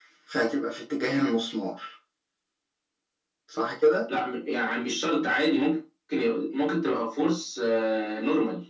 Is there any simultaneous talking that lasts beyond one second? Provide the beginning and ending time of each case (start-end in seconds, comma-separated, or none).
none